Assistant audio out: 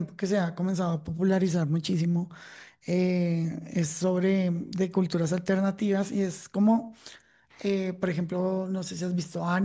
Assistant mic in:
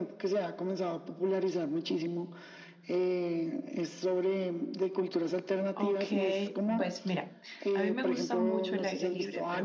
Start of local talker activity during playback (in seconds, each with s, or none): 5.7 s